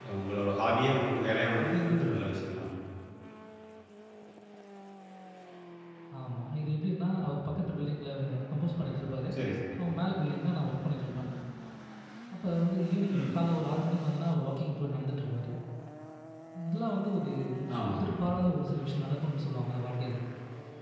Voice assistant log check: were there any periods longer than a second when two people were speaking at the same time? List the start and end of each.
none

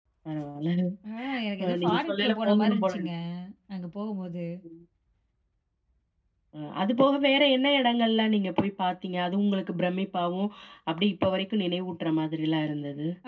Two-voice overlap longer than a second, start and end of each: 1.6-3.1

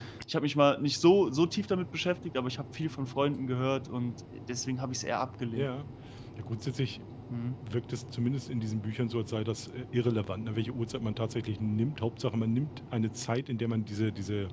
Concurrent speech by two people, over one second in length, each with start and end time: none

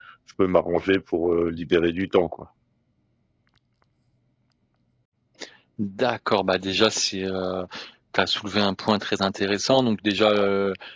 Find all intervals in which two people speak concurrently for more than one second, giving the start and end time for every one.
none

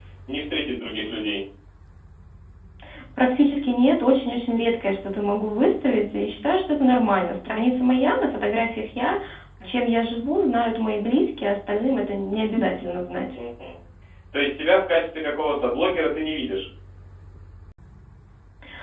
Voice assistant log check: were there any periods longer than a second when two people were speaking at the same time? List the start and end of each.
none

